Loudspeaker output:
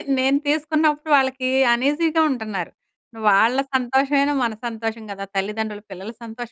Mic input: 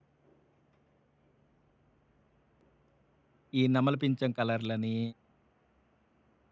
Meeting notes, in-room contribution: present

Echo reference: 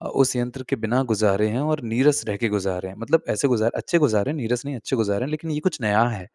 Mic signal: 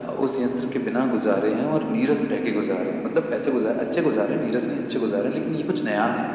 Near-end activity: none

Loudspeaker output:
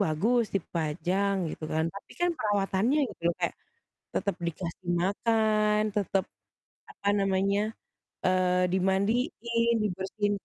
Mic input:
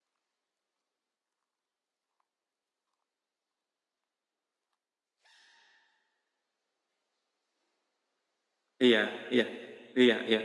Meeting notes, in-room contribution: present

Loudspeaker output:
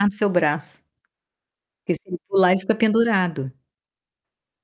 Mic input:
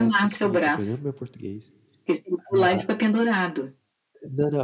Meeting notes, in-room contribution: present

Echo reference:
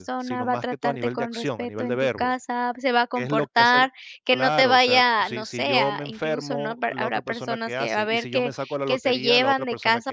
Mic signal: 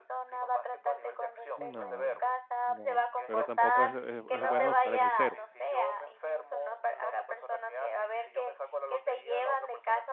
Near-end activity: present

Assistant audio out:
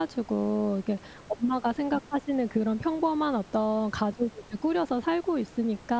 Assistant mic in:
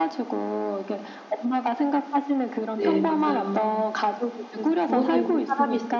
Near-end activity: present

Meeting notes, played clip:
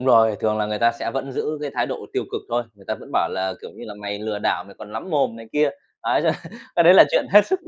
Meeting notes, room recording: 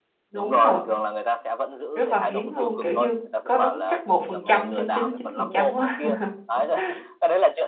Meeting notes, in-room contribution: present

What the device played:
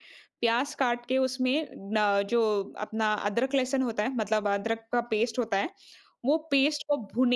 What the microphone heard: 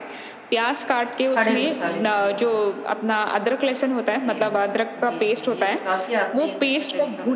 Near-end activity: present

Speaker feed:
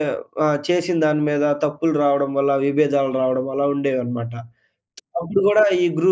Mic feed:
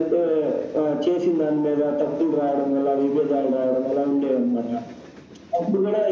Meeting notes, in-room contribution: none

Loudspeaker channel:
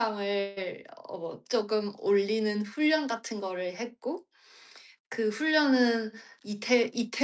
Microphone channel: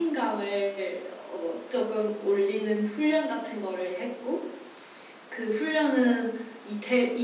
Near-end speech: none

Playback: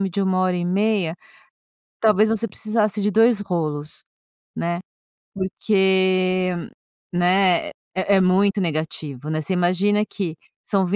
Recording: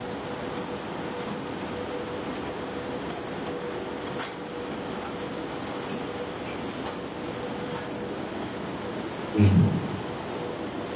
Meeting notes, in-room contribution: present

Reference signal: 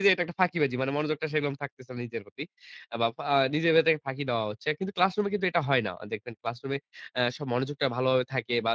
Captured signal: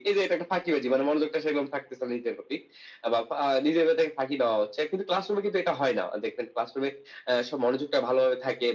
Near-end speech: none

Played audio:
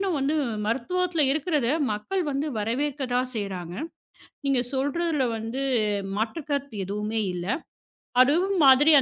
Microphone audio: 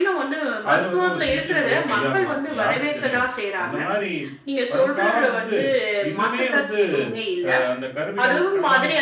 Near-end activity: present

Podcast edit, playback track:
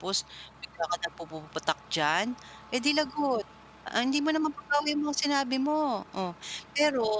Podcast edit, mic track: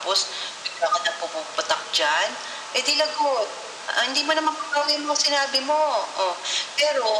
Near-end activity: none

